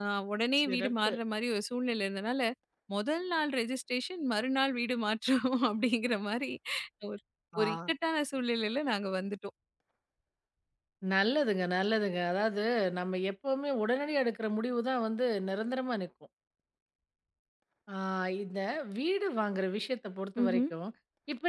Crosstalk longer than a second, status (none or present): none